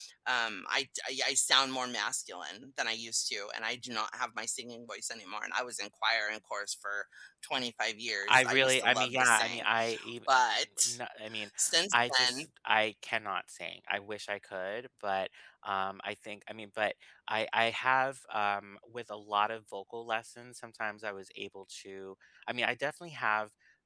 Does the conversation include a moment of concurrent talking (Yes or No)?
Yes